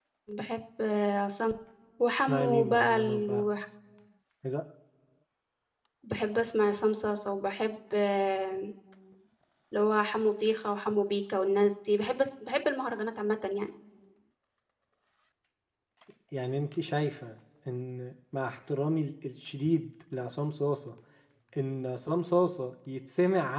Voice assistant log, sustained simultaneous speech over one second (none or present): present